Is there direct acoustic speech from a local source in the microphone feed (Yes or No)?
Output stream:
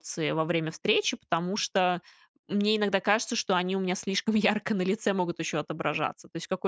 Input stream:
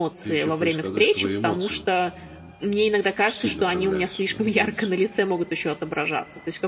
Yes